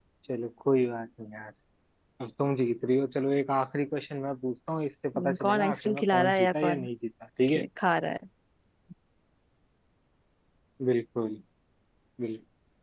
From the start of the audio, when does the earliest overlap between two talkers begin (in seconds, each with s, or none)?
5.1 s